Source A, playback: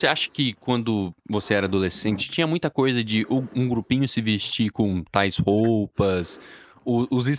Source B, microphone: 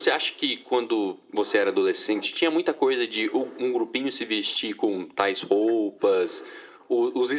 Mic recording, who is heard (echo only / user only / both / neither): echo only